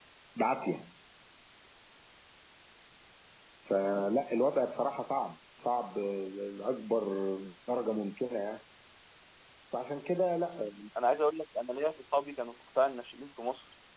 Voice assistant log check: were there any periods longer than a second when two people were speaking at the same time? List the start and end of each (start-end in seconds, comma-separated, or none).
none